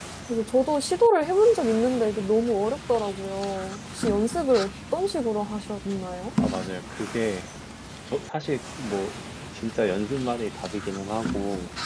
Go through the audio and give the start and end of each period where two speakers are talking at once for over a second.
none

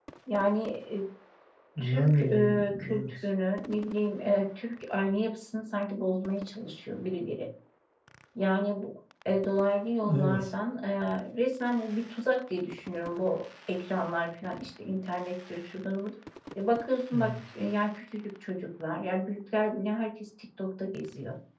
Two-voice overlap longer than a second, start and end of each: 1.8-3.1

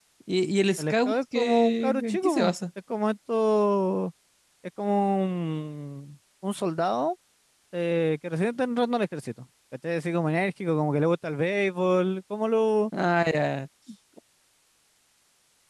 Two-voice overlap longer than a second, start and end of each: 0.8-2.5

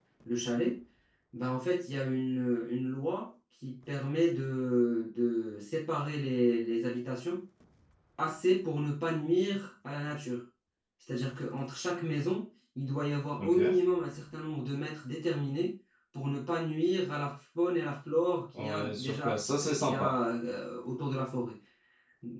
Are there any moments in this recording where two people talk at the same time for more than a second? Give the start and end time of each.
18.6-20.1

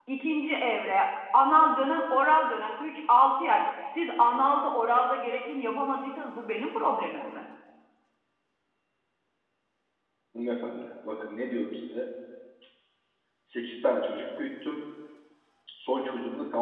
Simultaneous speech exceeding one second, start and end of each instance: none

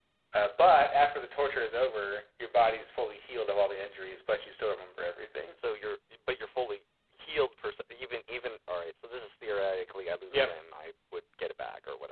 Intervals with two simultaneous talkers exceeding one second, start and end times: none

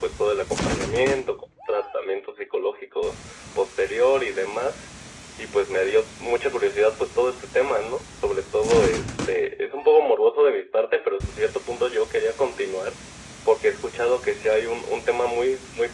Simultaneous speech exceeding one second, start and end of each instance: none

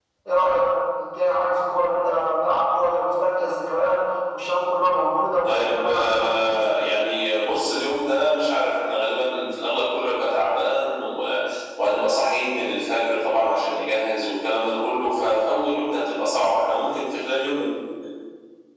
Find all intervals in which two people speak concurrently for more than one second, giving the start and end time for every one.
5.4-6.6

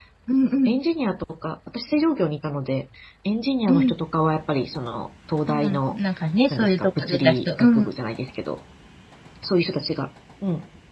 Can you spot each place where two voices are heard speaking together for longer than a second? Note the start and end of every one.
6.5-7.9

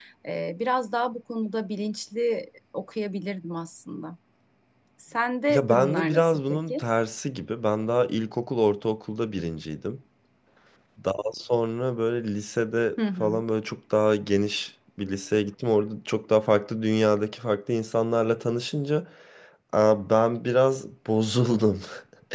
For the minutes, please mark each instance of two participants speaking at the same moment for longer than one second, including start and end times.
5.5-6.8

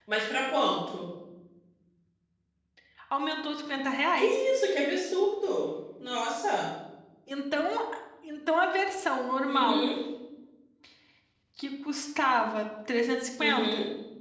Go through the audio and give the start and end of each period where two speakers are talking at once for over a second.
none

